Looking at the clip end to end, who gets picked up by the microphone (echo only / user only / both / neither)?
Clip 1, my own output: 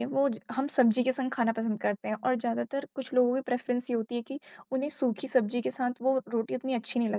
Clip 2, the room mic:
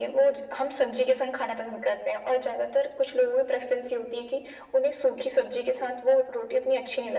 echo only